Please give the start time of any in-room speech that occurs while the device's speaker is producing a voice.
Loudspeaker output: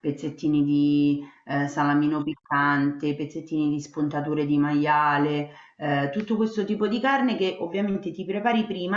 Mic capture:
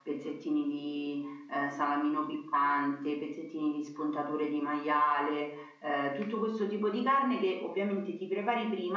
none

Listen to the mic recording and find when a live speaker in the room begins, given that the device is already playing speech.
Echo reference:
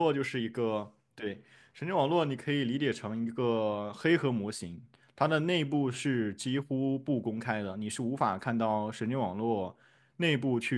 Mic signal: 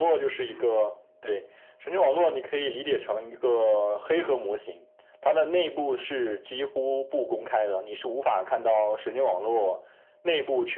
0 s

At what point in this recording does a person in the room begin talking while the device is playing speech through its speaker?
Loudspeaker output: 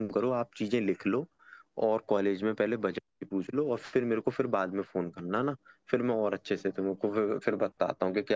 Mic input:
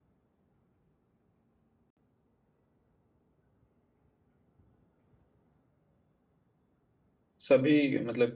7 s

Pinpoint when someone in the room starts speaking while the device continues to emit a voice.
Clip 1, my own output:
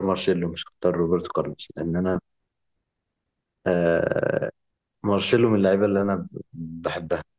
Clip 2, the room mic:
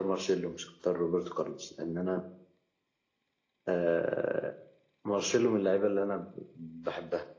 none

